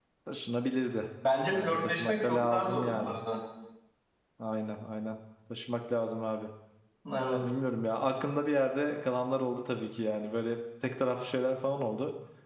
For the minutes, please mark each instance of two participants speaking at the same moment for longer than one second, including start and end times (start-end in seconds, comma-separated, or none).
1.5-3.2